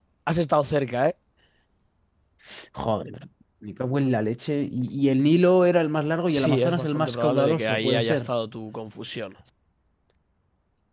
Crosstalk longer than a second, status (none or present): present